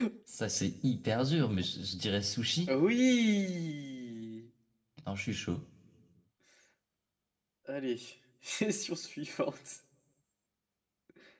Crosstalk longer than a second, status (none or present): none